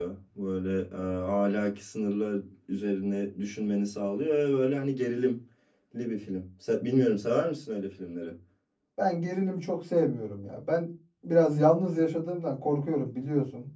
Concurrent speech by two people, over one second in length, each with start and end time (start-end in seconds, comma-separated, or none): none